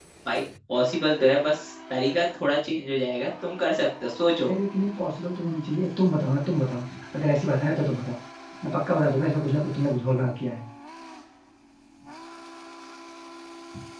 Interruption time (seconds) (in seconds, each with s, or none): none